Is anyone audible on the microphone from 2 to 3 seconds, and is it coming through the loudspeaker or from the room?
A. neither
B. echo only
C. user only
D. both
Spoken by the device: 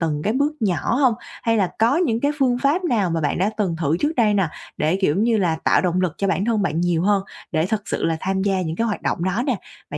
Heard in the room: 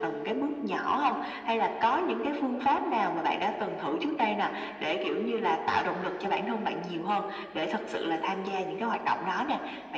B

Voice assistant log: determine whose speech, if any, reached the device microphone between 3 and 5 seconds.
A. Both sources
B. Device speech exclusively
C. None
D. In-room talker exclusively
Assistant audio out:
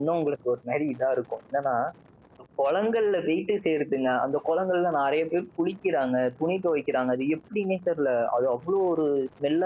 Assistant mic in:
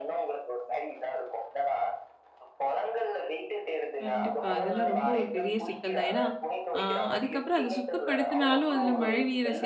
A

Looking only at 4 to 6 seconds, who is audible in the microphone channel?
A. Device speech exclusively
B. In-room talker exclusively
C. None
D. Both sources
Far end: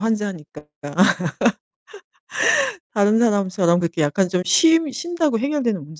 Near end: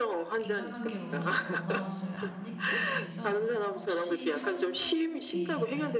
D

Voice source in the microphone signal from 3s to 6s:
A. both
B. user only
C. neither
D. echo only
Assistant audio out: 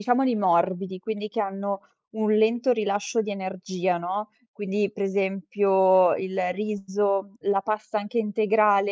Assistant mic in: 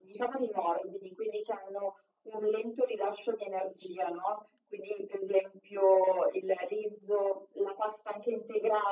D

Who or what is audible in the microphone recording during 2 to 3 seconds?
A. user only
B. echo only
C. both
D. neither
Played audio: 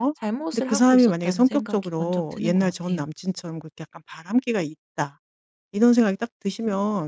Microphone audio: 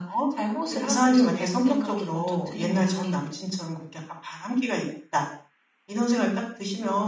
C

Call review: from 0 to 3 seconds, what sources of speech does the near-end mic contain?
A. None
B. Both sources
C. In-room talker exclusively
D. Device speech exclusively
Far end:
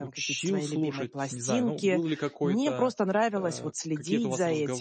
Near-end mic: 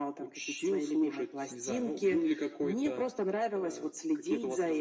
D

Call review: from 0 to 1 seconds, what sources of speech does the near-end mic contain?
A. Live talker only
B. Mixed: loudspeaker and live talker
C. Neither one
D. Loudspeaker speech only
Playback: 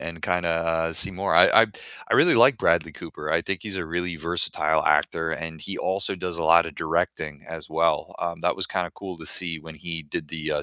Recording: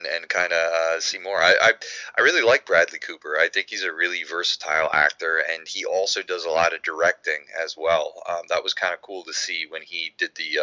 D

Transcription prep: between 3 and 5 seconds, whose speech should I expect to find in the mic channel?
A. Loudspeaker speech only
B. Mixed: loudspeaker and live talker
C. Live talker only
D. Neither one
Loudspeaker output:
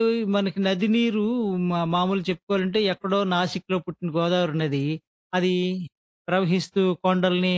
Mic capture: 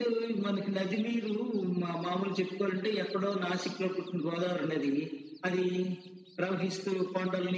A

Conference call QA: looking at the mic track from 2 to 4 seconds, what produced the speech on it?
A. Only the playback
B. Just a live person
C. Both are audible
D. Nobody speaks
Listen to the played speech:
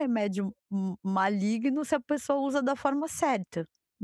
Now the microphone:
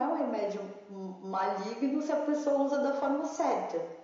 A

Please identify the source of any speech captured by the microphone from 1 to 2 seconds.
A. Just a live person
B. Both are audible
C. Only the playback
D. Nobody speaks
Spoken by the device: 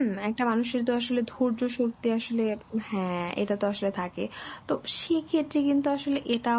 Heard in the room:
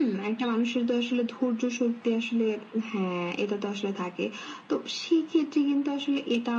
C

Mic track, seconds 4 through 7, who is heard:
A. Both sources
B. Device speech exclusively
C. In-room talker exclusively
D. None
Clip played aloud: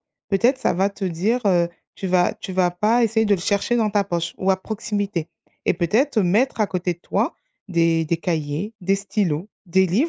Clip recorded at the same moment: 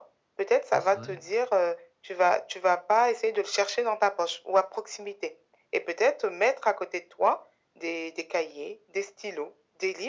B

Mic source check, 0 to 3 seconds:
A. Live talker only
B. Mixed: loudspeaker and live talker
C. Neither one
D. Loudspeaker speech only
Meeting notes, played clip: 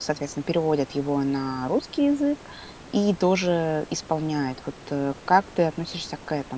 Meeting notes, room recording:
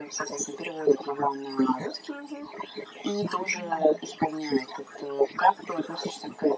D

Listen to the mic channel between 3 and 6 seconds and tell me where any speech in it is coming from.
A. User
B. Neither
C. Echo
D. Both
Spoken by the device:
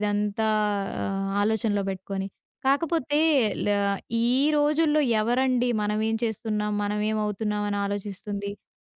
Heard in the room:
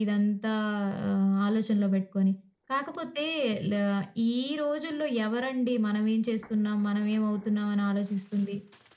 C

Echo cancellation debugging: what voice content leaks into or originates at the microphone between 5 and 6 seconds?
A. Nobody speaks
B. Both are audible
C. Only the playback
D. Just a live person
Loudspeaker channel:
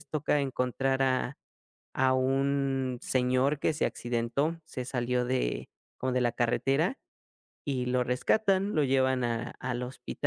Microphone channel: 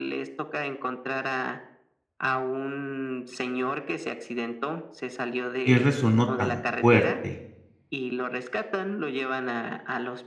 B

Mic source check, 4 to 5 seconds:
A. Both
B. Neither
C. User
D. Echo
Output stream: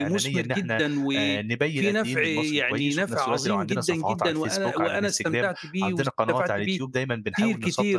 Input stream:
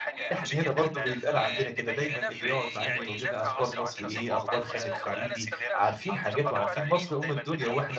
A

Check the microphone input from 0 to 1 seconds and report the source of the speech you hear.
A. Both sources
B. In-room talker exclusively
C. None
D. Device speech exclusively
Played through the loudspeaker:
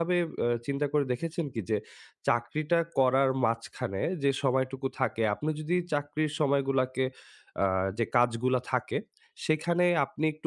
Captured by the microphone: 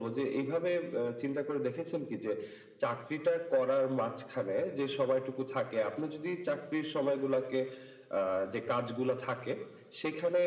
D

